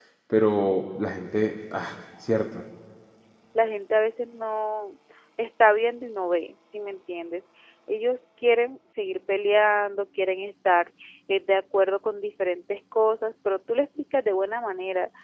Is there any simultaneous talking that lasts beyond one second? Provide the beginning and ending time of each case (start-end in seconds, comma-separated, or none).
none